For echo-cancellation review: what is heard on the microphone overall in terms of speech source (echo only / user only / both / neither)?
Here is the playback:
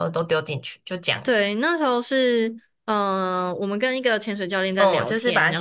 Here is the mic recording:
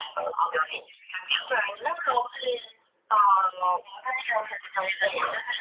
echo only